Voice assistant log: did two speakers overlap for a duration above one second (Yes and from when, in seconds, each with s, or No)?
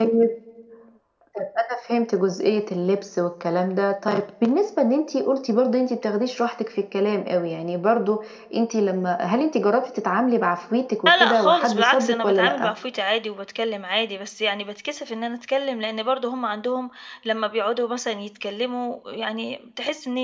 Yes, from 11.1 s